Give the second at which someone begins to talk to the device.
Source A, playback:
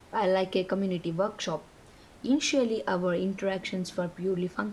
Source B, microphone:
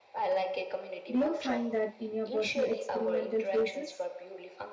1.1 s

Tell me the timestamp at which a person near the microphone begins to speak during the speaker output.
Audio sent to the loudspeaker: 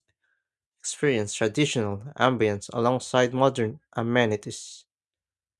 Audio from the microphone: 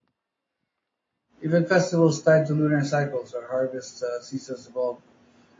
1.4 s

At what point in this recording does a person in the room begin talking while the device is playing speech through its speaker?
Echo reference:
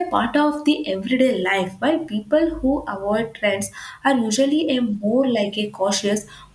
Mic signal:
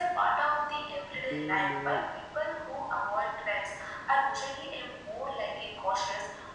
1.1 s

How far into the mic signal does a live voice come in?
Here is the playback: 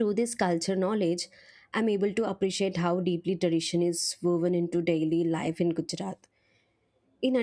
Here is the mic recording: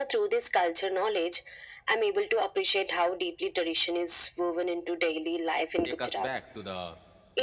5.8 s

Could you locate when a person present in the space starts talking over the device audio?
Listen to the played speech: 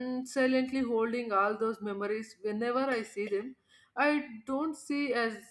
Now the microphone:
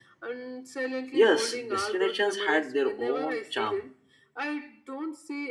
1.1 s

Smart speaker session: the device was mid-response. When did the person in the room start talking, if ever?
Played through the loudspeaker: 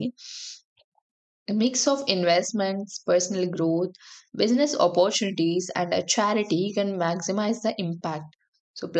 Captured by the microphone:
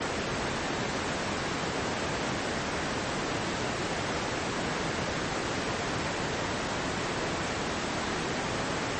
none

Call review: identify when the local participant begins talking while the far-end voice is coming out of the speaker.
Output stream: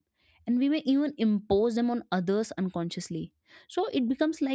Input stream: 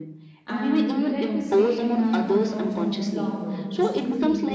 0.4 s

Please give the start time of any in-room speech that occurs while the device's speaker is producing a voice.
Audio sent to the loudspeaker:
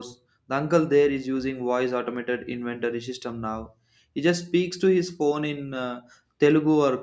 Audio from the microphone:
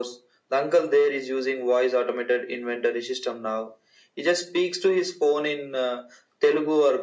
none

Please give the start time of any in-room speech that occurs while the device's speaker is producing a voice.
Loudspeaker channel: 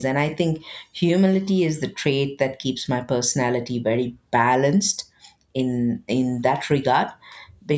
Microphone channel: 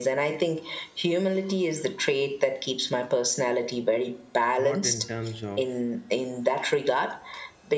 4.6 s

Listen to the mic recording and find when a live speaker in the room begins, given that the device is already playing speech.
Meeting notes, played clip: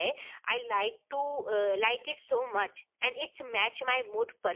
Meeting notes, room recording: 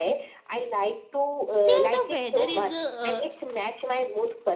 1.6 s

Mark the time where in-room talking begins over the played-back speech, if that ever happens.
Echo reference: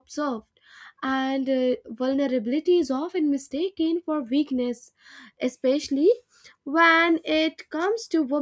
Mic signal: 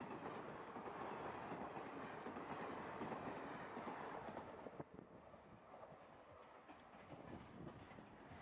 none

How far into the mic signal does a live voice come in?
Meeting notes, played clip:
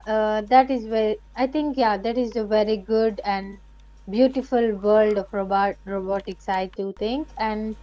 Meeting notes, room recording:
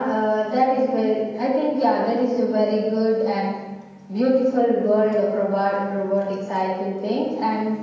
none

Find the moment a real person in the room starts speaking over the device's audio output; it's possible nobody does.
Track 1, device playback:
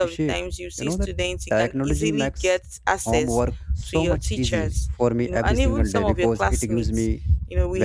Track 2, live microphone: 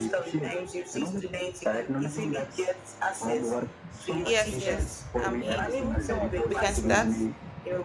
4.2 s

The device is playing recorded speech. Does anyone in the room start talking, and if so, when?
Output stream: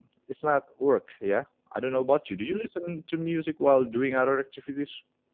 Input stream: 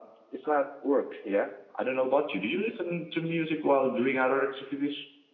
none

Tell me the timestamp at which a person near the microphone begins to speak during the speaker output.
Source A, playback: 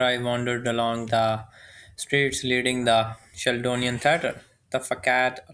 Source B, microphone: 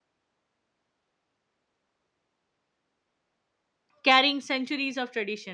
4.0 s

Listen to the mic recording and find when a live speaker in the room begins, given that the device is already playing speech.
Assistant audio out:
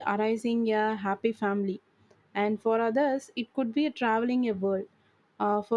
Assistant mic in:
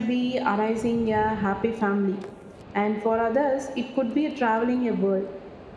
none

